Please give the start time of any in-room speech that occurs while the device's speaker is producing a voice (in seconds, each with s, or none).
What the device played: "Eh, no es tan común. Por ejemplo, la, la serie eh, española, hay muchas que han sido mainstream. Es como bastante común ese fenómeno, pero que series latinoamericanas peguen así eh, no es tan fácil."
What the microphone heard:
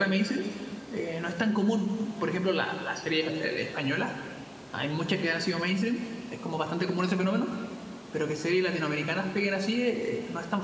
none